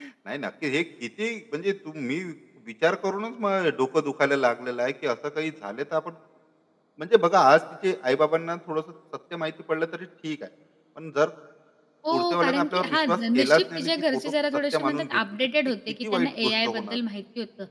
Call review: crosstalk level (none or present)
present